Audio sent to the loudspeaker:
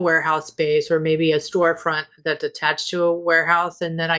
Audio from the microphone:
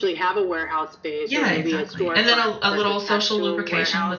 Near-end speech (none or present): present